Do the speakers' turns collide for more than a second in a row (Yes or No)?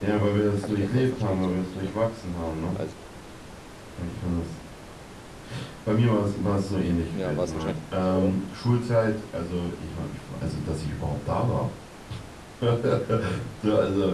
Yes